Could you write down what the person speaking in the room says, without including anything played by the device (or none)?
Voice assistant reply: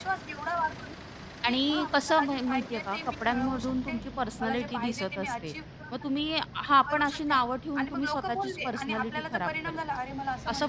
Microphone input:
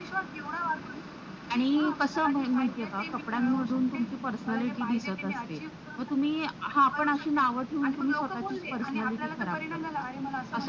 none